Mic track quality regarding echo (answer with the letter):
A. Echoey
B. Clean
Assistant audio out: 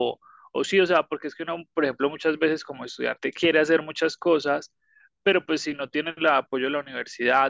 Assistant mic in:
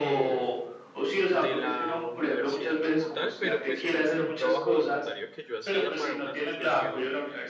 A